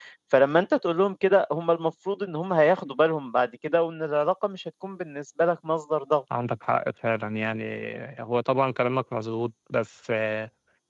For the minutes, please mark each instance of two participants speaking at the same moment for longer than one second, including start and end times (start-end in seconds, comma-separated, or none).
none